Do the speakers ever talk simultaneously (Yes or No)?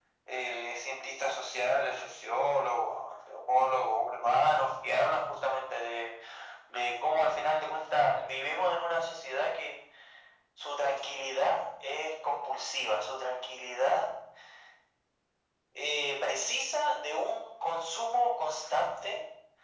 No